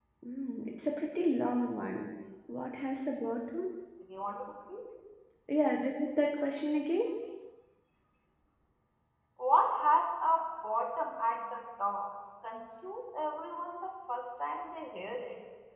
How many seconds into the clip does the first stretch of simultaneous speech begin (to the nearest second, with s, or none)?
none